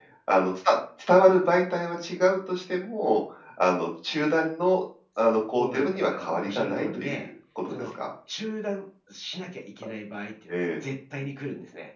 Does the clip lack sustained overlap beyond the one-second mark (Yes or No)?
No